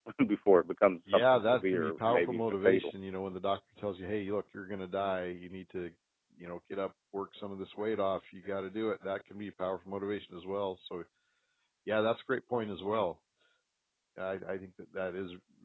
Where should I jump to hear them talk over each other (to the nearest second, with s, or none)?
1 s